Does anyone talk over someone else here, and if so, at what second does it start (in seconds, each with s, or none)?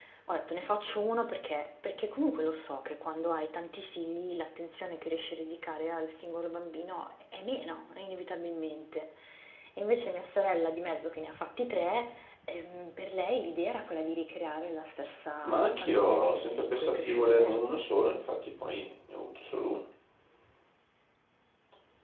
15.4 s